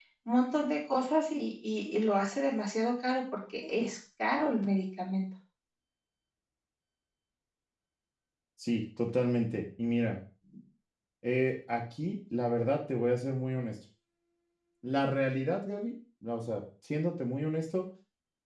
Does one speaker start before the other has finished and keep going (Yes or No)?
No